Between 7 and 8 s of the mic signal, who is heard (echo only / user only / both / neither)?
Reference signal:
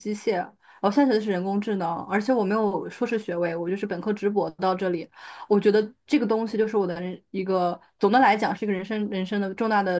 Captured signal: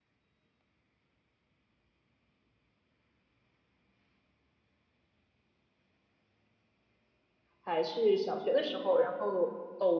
user only